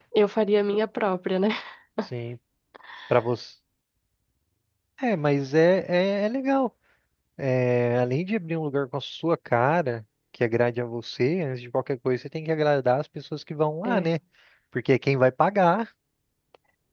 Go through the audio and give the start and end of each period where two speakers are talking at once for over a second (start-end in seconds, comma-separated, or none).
none